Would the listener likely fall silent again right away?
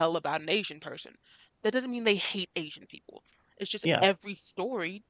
Yes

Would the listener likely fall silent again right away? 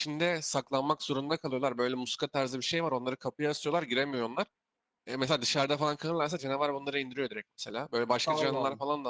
Yes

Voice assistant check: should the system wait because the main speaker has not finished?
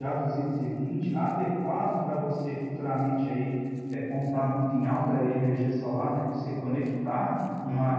Yes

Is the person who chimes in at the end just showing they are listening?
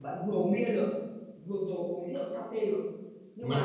Yes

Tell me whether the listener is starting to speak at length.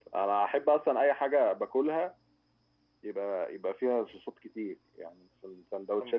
Yes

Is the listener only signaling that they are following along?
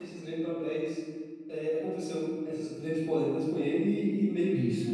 Yes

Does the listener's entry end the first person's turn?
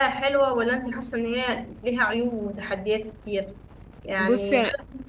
No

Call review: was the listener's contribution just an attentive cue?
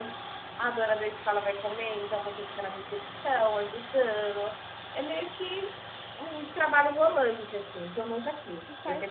Yes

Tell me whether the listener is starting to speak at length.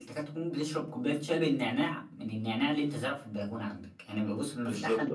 Yes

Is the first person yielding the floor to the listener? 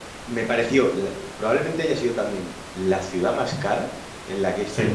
No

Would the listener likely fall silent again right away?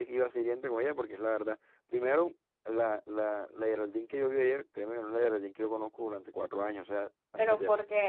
No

